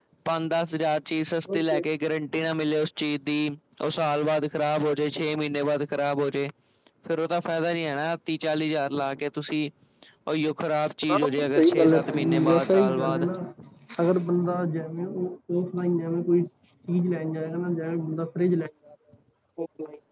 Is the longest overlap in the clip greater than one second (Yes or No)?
Yes